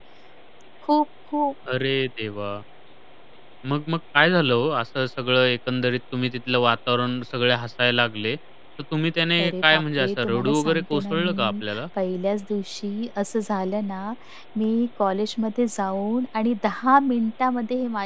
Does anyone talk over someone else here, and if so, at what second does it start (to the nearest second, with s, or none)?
9 s